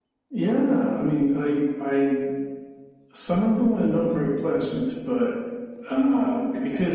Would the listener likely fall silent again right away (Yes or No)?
Yes